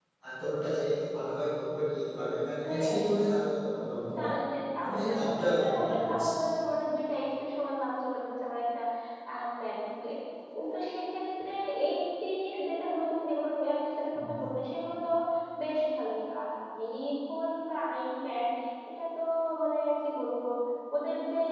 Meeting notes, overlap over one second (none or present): present